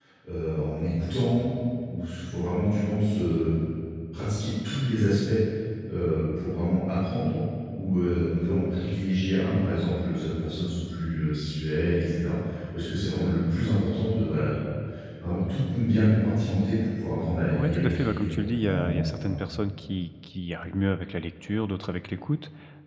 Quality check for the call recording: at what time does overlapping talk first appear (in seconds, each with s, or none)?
17.5 s